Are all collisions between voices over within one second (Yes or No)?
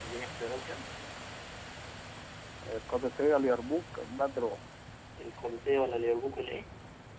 Yes